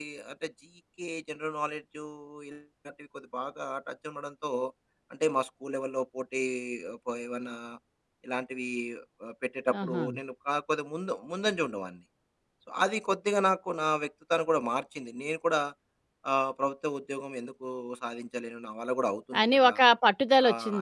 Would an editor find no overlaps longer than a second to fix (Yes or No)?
Yes